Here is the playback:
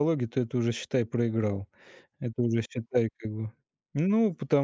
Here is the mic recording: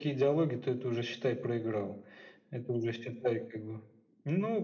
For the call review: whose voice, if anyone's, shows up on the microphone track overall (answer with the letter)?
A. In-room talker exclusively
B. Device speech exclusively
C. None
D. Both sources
B